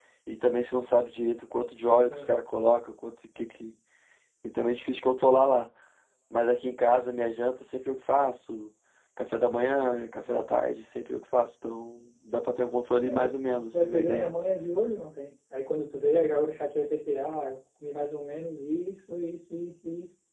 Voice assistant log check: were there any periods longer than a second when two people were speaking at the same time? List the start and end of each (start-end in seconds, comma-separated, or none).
13.0-14.3